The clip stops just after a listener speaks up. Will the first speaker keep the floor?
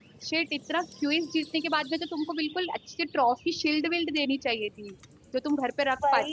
No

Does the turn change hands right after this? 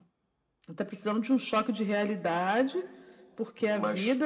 No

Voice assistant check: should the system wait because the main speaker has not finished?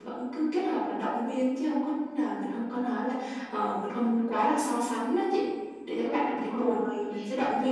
No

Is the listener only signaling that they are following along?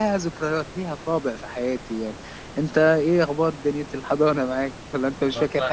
No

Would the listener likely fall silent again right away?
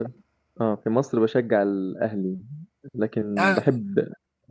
Yes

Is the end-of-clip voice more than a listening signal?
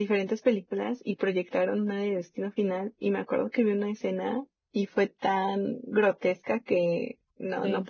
No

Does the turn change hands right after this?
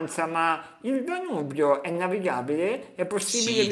Yes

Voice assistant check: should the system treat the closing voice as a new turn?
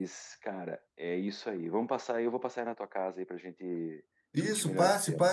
Yes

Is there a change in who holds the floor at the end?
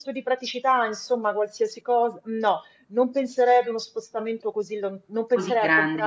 No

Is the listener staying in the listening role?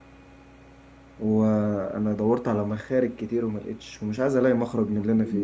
No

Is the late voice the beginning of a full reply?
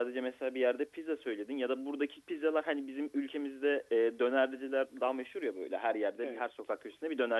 No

